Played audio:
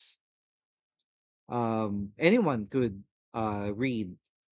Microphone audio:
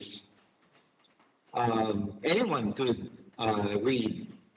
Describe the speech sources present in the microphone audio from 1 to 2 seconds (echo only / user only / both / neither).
echo only